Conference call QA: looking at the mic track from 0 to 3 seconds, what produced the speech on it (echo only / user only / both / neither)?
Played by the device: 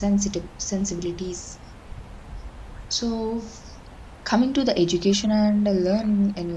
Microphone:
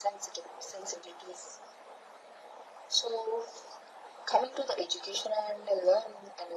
echo only